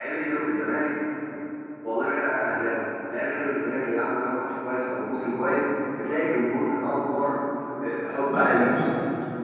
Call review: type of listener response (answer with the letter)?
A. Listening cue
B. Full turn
B